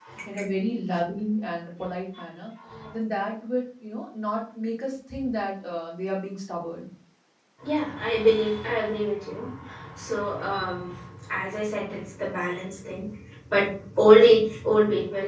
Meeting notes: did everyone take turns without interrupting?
Yes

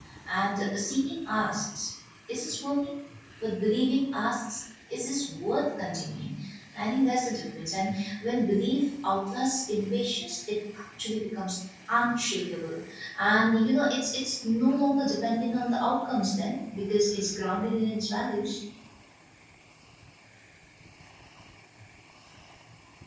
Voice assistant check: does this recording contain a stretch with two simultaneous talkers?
No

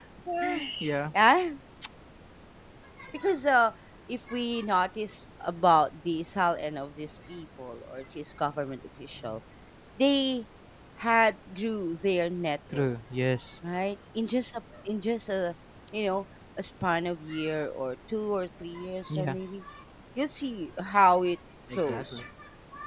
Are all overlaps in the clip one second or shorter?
Yes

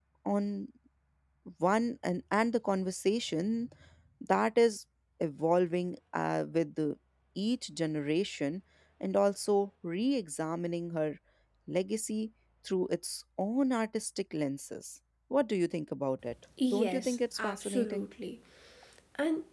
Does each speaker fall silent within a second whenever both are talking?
No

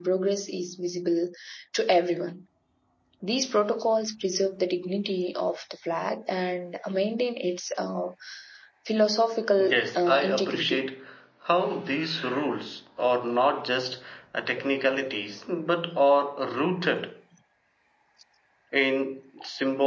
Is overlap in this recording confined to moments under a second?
No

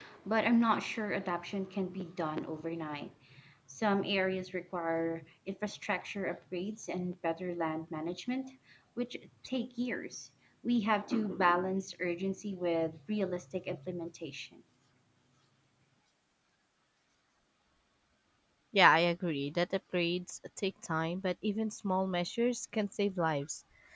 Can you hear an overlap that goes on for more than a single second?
No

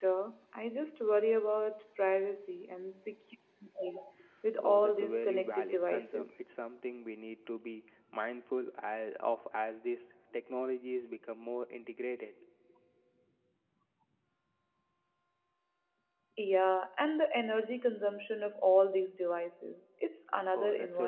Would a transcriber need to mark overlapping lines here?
Yes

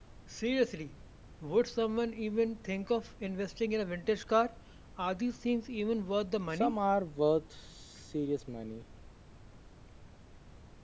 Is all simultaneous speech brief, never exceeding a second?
Yes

